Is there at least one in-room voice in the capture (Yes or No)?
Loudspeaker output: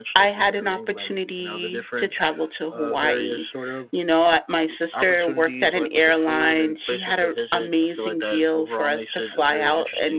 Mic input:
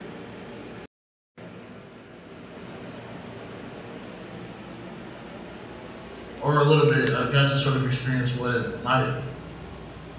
Yes